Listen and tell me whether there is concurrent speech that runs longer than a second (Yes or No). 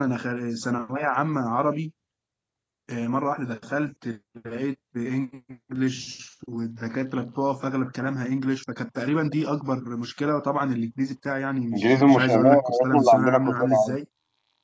Yes